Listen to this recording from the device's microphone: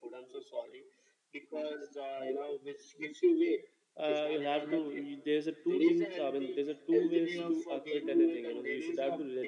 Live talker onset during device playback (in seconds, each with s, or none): 4.0 s